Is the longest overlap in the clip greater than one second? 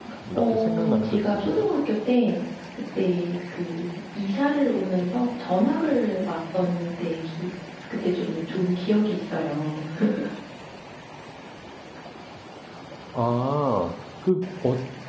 Yes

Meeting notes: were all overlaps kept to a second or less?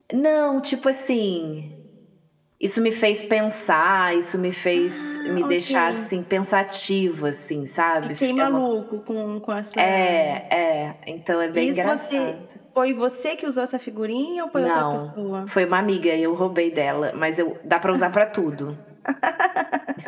No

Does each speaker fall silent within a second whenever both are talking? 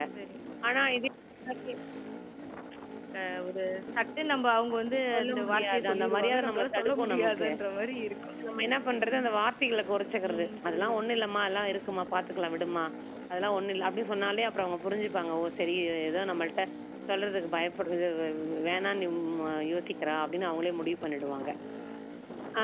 No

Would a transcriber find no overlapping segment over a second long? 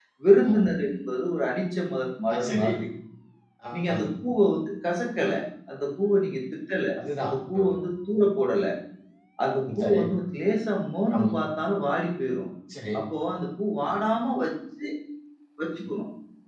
Yes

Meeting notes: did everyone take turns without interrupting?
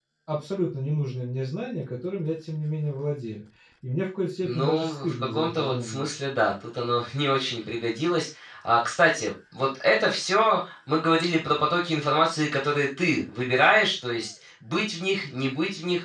No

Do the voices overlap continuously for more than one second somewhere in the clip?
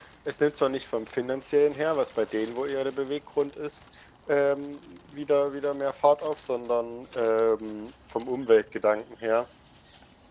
No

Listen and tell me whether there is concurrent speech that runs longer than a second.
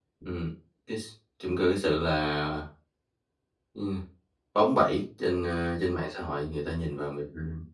No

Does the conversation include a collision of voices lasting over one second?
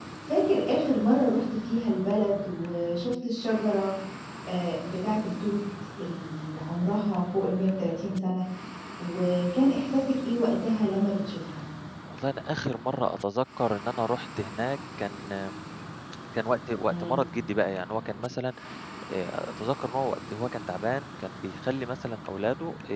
No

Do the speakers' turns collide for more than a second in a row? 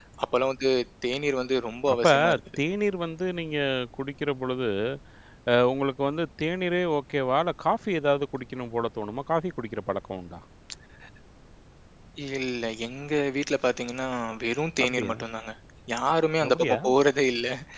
No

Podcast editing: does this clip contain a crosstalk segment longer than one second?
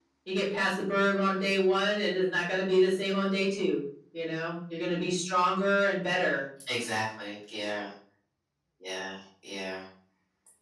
No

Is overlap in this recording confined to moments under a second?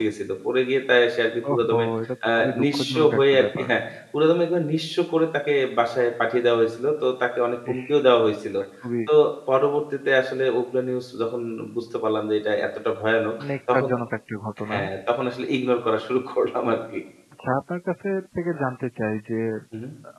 No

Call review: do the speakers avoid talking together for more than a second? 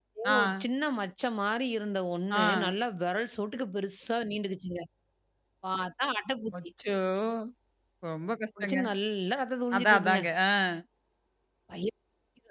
Yes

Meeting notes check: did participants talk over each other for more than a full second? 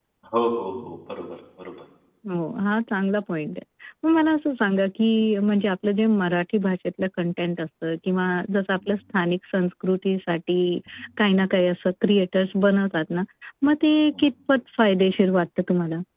No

